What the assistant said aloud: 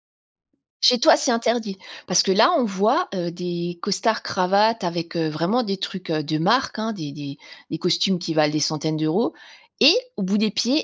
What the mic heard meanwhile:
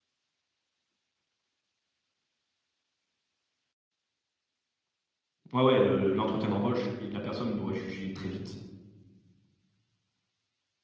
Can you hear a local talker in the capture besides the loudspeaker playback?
Yes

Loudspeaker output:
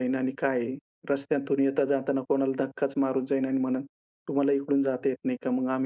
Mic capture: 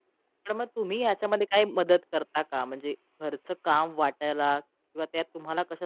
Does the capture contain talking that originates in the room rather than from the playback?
Yes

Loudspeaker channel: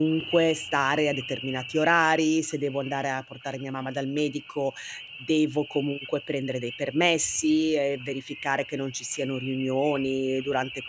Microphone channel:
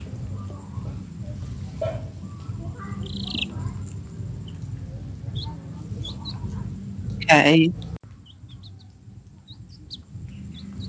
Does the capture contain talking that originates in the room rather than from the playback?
Yes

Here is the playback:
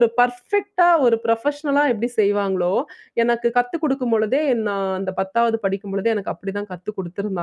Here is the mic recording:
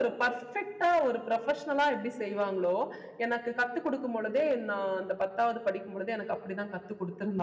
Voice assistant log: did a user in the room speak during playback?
No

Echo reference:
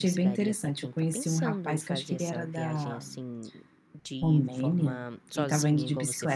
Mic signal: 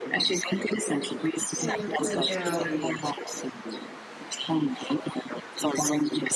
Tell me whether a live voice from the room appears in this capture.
Yes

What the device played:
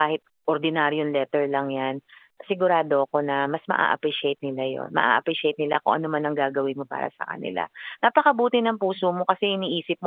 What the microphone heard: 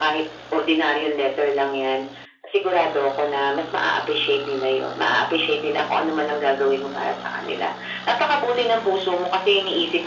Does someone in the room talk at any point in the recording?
No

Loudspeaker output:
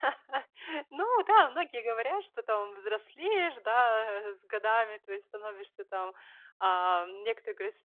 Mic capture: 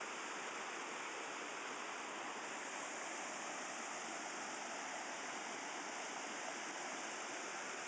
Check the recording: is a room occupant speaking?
No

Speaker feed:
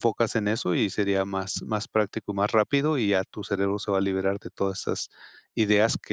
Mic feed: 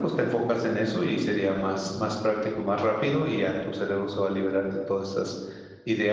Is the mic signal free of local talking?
Yes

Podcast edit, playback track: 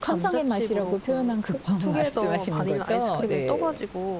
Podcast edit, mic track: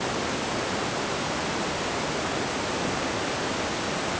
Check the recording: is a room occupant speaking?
No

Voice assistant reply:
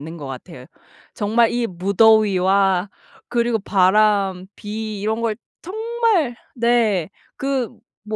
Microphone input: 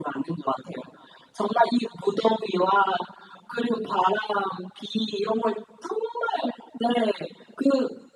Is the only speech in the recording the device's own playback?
Yes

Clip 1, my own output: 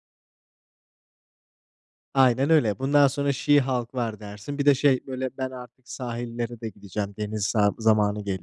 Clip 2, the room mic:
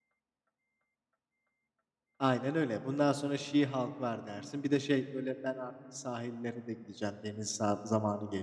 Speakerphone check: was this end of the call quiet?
Yes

